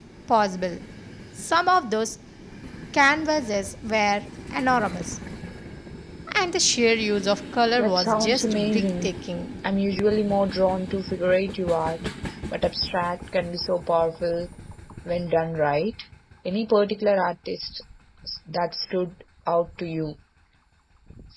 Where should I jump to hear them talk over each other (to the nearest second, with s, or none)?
8 s